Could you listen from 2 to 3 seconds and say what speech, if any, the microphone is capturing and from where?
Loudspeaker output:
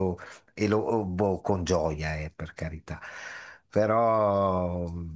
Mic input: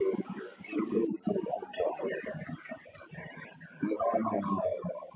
echo only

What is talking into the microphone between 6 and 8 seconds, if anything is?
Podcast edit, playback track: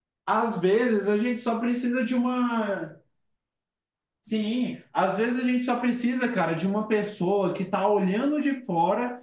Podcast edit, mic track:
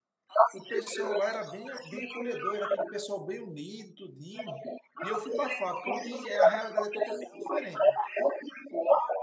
both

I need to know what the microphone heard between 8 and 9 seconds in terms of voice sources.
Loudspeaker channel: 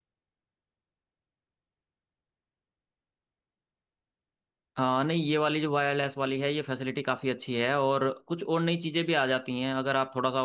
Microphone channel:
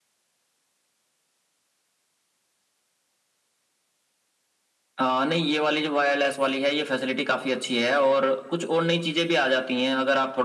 echo only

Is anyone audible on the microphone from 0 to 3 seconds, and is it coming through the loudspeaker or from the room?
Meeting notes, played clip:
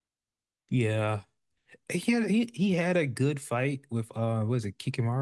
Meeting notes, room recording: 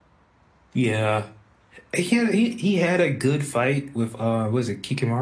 echo only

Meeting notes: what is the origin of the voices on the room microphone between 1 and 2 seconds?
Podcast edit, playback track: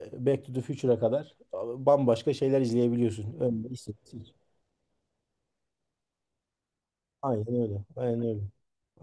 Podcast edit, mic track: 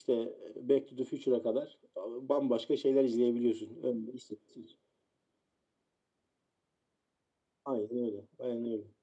echo only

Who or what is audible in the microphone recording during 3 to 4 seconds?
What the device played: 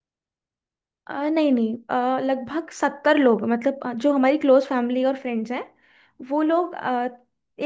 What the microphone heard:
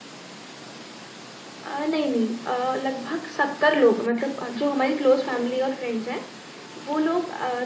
echo only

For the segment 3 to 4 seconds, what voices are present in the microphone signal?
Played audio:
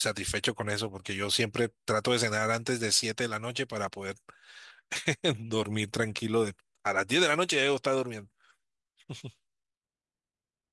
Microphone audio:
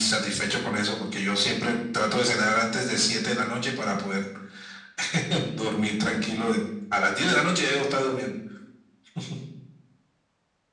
echo only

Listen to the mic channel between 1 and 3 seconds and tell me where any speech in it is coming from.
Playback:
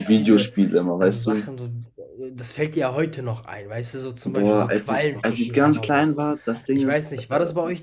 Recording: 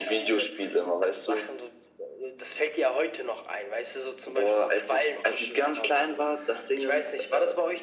echo only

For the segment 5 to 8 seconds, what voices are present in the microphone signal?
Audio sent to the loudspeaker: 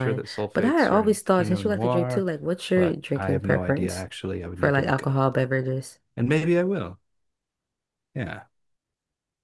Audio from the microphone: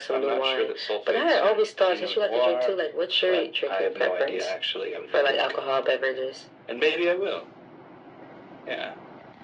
echo only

